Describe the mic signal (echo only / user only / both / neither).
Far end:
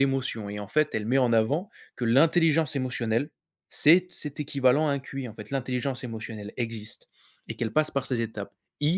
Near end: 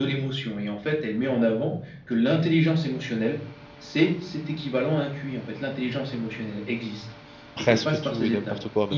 both